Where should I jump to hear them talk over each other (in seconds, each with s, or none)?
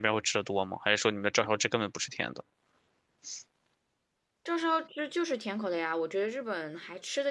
none